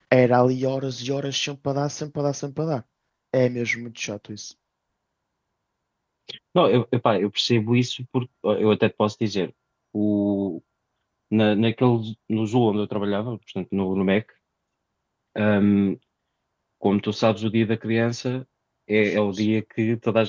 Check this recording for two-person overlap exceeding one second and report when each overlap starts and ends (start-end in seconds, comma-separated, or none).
none